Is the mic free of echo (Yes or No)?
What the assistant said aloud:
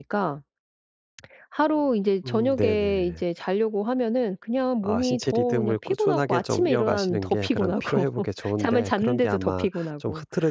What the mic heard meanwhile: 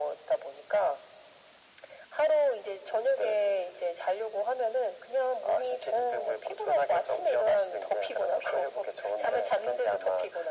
No